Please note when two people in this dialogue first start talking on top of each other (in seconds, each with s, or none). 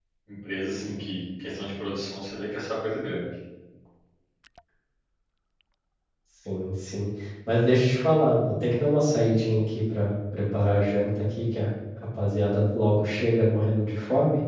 none